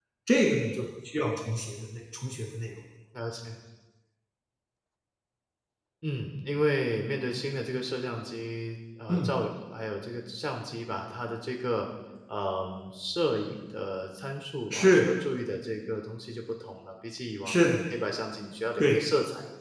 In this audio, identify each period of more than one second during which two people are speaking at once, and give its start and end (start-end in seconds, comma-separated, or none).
none